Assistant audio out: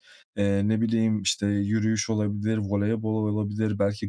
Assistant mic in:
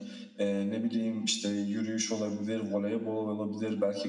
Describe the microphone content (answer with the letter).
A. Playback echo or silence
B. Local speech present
A